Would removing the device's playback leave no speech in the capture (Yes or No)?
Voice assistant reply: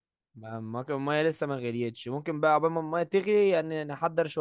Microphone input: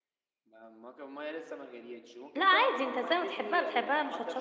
No